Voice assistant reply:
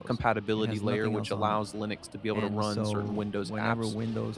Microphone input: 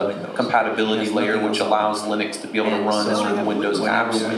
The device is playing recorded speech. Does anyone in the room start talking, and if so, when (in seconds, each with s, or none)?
3.0 s